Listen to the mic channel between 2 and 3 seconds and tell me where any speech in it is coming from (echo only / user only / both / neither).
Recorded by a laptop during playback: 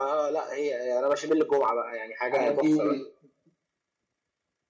both